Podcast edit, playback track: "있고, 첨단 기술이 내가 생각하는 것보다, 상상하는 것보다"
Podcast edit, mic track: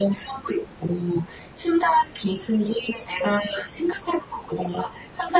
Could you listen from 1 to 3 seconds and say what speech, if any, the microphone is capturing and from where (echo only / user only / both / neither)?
echo only